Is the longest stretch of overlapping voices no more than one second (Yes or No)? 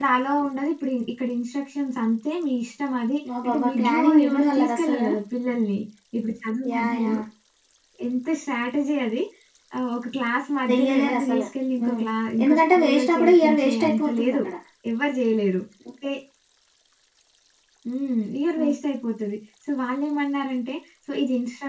No